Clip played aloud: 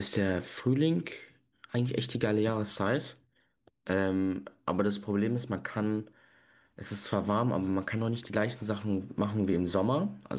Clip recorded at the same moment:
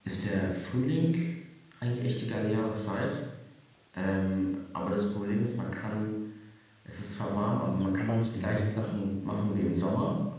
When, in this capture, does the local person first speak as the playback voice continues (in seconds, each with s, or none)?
7.8 s